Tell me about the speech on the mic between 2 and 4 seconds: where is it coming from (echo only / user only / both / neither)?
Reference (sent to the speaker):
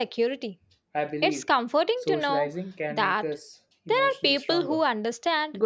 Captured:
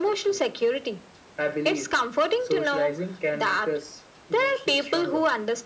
echo only